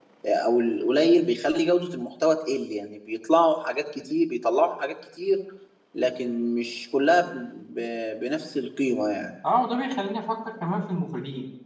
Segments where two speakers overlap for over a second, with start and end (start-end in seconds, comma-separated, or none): none